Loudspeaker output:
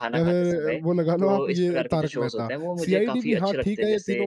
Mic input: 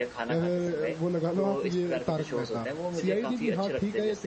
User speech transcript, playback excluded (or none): none